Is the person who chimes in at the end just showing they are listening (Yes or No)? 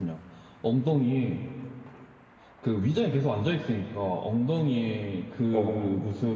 Yes